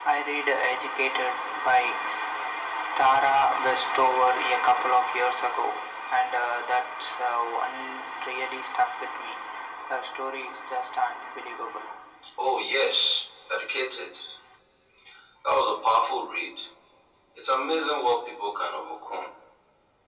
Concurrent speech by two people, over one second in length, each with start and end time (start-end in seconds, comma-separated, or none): none